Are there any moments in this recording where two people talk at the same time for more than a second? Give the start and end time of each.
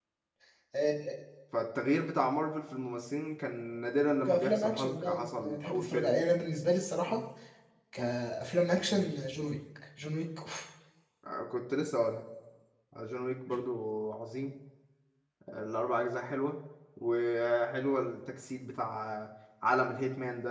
4.2-6.1

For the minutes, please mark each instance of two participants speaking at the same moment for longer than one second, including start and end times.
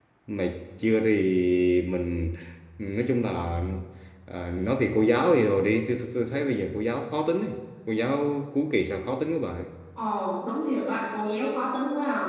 none

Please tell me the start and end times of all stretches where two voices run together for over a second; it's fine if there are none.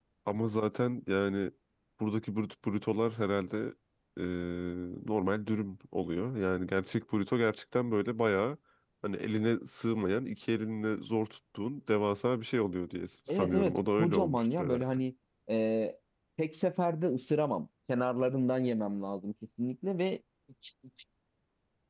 13.3-15.0

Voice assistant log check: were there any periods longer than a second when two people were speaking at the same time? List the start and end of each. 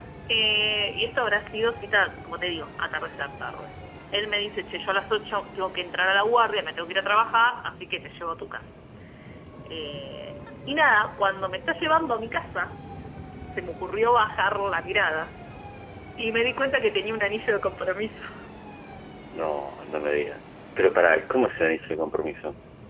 none

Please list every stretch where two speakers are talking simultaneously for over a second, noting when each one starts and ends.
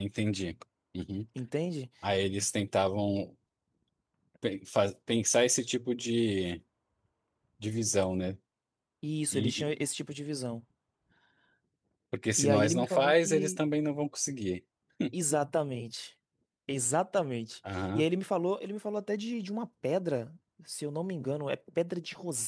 12.4-13.6

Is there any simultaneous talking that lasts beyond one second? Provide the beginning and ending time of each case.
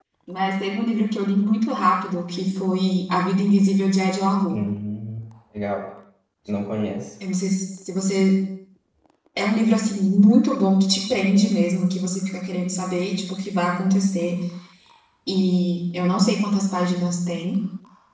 none

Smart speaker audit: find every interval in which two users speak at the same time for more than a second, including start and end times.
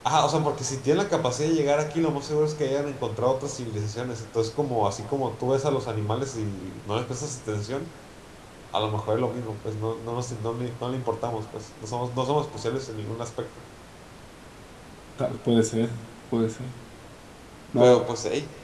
none

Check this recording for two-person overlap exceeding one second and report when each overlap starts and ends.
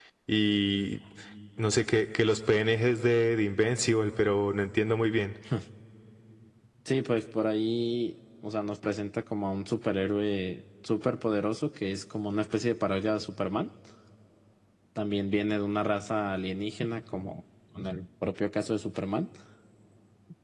none

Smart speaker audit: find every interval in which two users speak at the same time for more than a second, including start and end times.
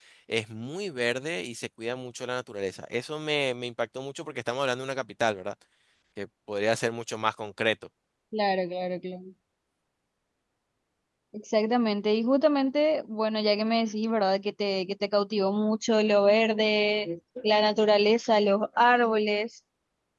none

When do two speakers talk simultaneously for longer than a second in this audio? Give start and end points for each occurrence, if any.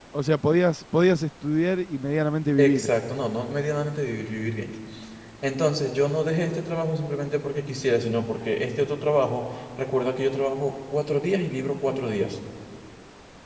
none

